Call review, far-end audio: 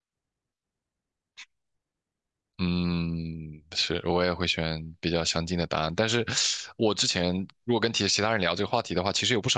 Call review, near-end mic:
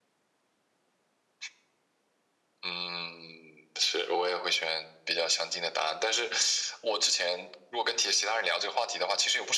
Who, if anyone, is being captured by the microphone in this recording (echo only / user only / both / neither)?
echo only